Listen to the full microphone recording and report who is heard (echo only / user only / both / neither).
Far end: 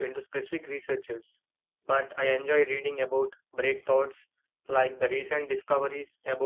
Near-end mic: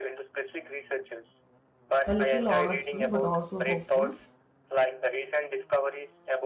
both